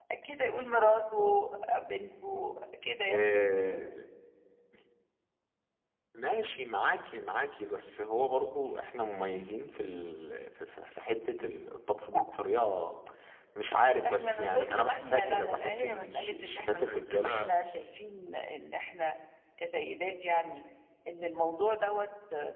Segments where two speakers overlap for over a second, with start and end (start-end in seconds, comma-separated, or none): 14.1-17.4